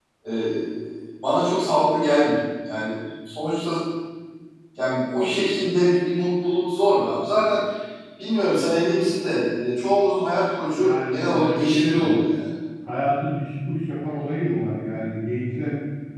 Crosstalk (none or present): present